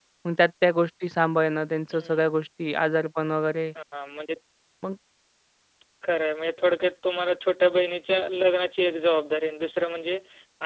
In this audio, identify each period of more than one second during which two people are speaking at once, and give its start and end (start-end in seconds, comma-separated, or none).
none